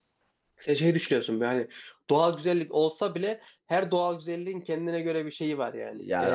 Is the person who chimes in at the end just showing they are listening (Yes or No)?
No